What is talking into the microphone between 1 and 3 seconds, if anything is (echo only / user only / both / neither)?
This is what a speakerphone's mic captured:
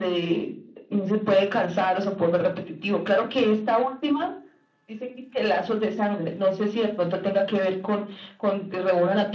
echo only